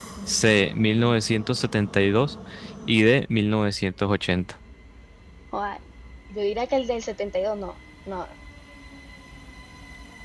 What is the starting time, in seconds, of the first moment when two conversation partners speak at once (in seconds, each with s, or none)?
none